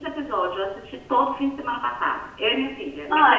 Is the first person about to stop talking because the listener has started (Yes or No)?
Yes